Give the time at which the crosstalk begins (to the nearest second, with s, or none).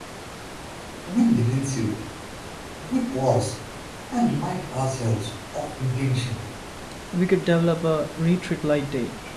none